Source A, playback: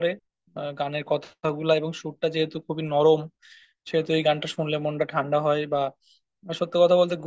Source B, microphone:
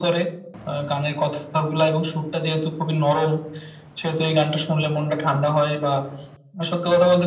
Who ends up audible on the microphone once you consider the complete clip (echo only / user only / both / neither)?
echo only